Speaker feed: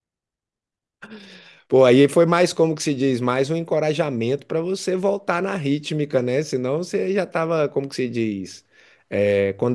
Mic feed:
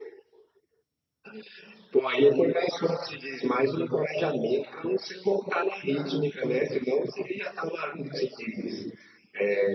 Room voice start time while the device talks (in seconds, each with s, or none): none